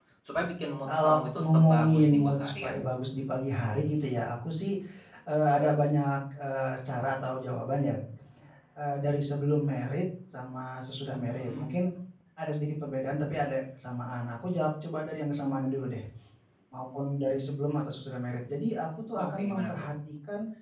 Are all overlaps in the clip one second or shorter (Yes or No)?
No